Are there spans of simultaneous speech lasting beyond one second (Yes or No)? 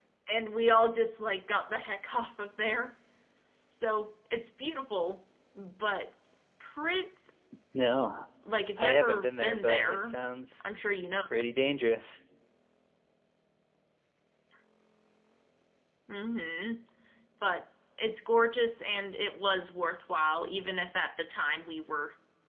Yes